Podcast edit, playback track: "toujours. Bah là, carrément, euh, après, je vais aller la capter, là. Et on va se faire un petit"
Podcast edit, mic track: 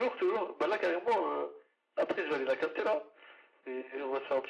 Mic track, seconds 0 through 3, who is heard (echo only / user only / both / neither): echo only